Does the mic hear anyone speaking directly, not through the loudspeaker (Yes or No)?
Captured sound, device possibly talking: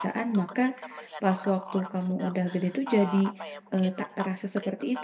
Yes